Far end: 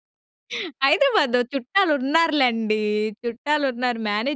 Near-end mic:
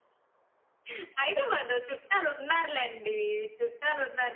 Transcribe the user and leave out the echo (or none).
none